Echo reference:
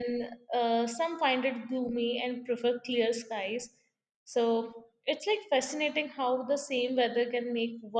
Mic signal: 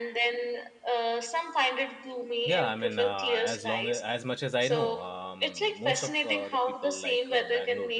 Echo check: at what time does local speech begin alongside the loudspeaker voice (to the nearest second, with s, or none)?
2 s